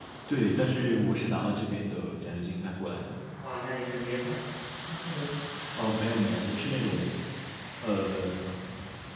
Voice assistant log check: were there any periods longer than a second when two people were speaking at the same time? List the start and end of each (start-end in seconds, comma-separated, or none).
none